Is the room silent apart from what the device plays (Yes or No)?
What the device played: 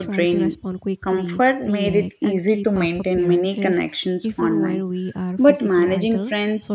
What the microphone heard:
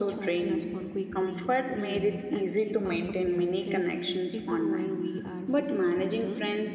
Yes